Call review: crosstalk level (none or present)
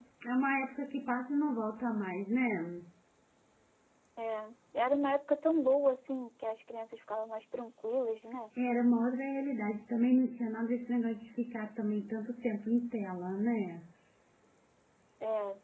none